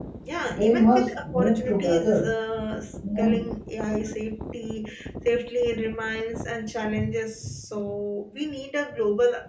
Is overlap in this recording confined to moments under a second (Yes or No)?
No